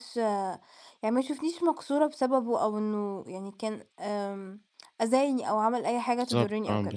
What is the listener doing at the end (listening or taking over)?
taking over